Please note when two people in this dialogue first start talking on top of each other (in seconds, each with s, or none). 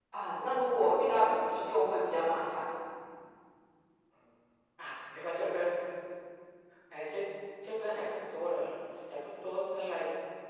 none